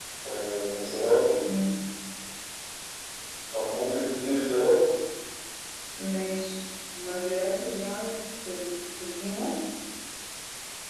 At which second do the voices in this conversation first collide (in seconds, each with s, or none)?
none